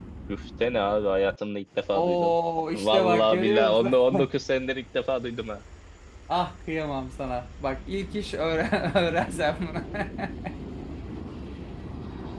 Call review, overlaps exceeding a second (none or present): present